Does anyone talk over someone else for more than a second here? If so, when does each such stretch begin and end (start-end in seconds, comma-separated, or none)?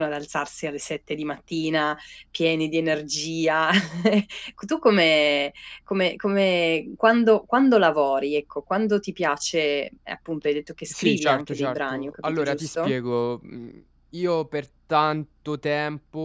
10.9-12.9